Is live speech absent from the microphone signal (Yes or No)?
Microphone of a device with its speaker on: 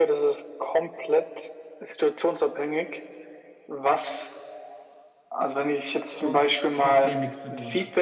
No